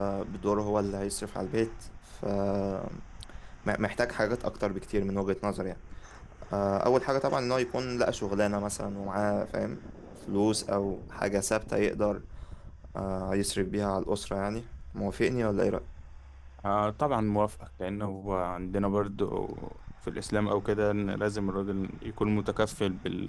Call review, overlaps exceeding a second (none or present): none